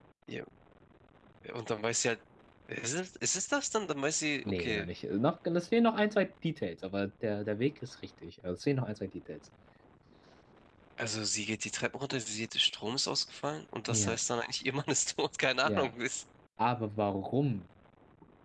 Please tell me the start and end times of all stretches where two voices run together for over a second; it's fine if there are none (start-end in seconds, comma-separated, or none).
none